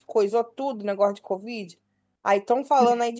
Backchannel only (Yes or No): Yes